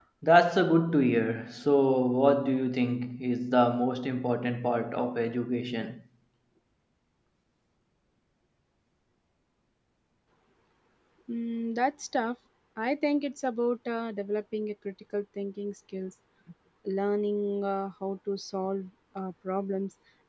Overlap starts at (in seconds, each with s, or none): none